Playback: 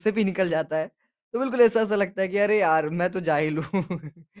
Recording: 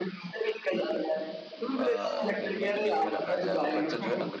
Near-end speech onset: 1.6 s

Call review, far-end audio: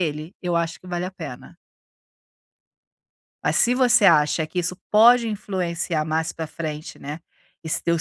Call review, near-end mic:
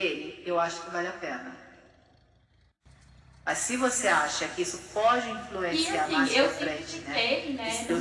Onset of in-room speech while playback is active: 5.7 s

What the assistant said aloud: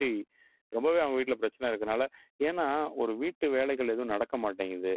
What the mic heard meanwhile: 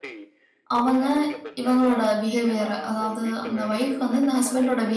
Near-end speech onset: 0.8 s

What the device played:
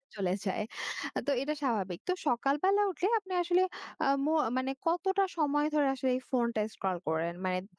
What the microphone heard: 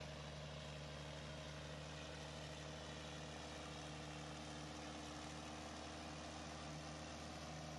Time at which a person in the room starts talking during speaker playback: none

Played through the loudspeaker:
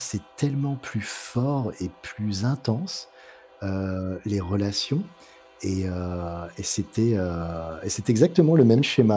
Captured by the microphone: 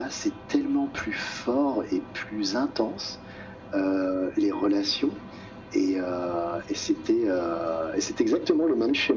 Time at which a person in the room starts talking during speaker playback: none

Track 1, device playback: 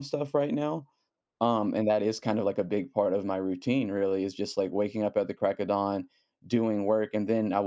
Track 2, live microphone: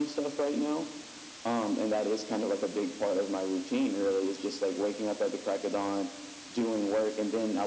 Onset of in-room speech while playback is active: none

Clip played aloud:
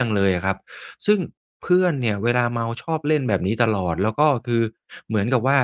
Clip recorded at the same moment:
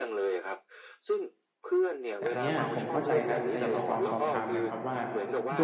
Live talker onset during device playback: 2.2 s

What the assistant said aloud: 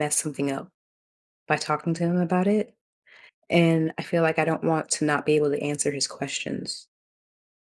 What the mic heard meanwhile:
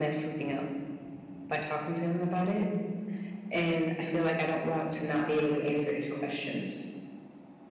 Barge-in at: none

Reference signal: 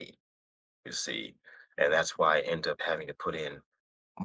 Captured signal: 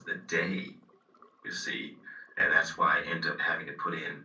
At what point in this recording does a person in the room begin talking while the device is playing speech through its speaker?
none

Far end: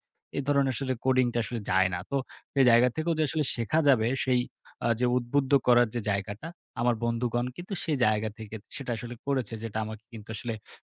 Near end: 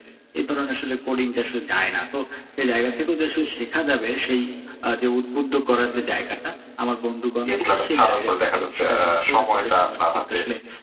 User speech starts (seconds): 7.5 s

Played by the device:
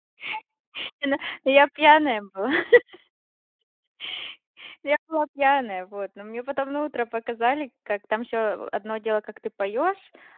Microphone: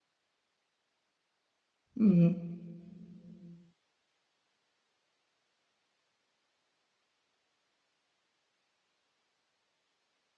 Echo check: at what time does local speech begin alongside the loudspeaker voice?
2.0 s

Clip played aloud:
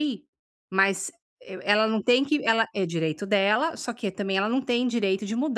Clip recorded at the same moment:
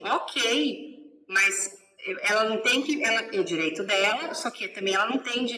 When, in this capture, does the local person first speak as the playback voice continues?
none

